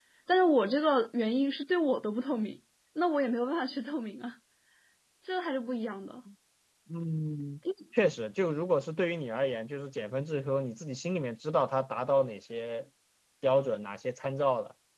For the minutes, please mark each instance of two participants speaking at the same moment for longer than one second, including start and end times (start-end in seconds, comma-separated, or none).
none